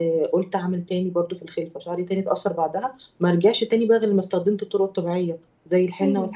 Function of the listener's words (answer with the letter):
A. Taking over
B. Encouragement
A